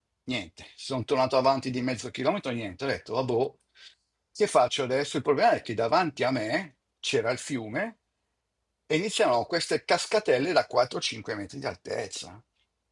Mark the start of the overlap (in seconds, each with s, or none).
none